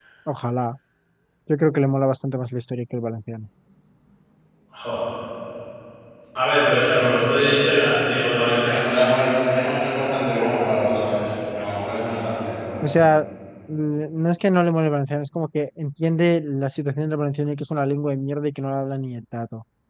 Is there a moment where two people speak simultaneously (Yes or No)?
No